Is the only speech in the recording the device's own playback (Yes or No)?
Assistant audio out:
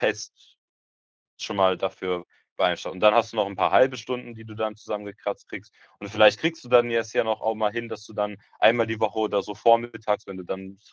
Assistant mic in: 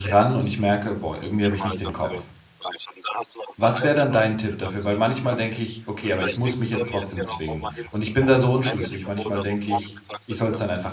No